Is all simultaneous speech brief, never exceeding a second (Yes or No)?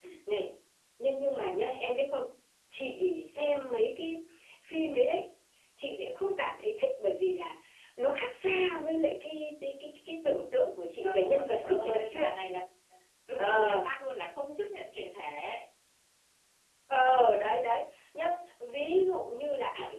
No